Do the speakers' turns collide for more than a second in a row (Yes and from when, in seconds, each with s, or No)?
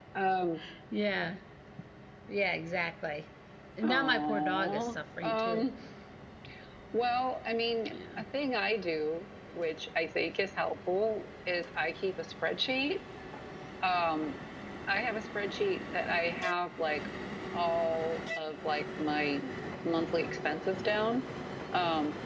Yes, from 3.8 s